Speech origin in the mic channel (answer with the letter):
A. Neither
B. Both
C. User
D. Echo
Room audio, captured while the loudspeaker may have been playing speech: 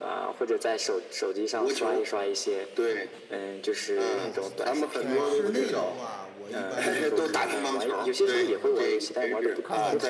B